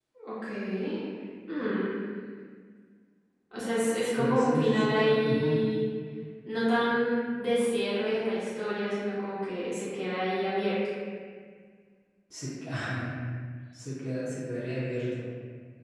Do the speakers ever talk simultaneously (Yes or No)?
Yes